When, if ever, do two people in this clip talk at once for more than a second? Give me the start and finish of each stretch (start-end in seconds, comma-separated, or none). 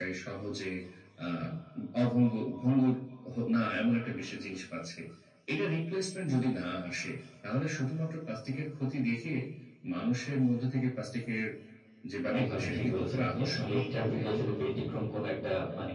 12.4-14.2